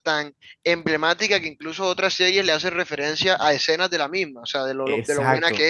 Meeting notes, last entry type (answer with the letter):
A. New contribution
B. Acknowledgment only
A